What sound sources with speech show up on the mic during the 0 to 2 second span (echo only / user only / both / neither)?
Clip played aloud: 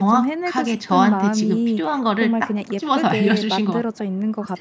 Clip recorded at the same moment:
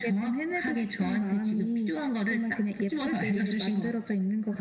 echo only